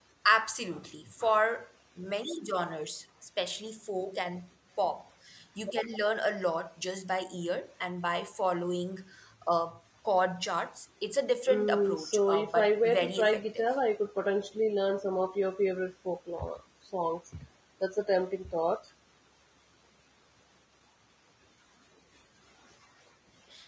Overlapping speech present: Yes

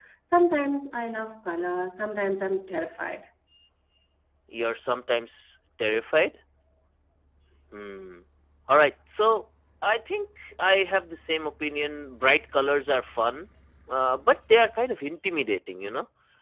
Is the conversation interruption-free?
Yes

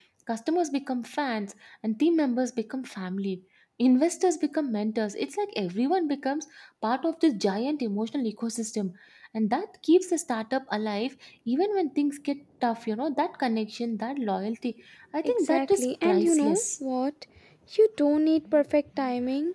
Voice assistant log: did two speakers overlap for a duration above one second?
Yes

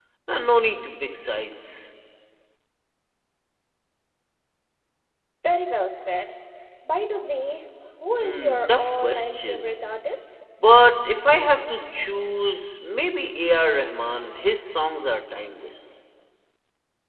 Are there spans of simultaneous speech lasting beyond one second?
Yes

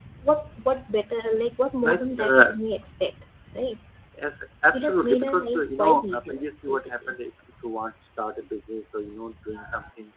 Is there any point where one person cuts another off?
Yes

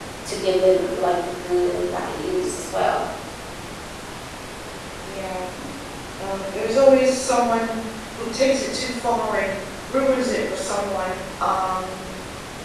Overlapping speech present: No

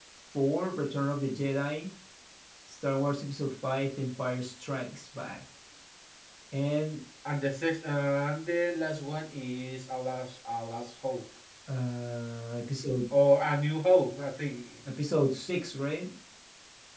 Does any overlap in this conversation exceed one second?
No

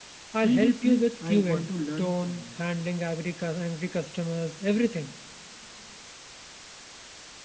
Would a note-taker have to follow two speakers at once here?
Yes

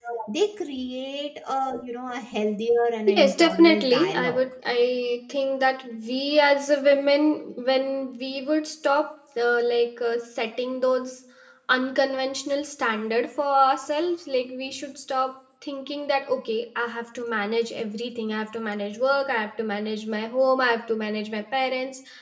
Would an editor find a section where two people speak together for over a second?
Yes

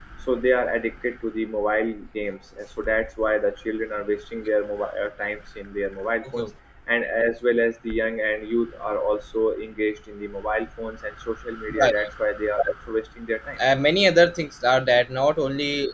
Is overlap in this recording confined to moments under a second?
Yes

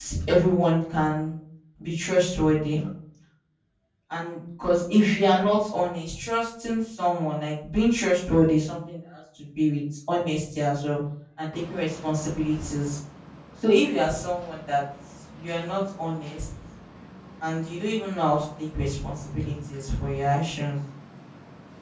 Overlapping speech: No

